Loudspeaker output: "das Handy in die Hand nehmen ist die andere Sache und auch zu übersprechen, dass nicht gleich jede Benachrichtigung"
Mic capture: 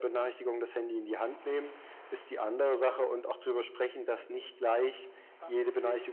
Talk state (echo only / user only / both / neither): both